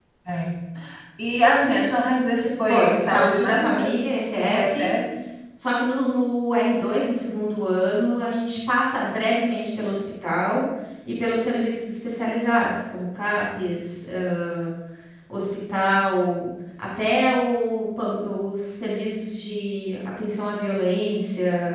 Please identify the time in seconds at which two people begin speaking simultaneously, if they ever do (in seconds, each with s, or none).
2.7 s